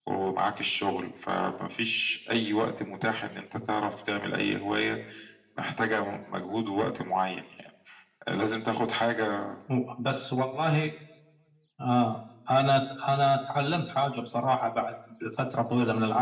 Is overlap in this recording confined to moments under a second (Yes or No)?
Yes